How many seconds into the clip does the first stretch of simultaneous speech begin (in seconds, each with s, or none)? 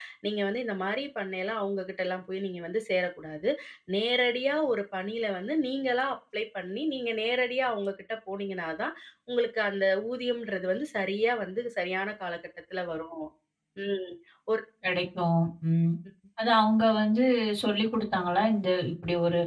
none